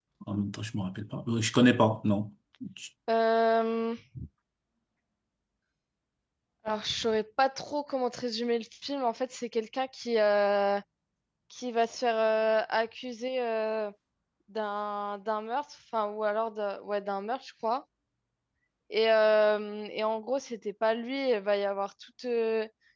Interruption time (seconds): none

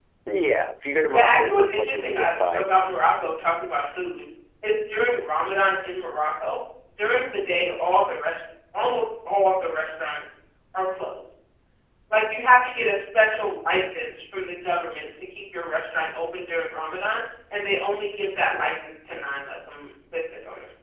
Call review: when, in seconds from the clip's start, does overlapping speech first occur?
1.1 s

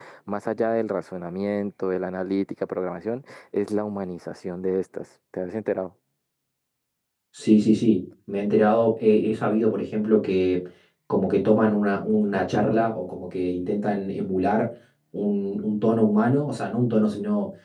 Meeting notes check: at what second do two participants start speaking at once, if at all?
none

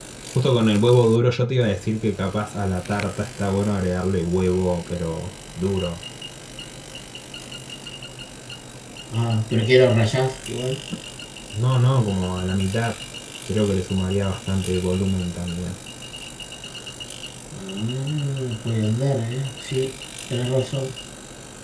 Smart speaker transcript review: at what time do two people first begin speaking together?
none

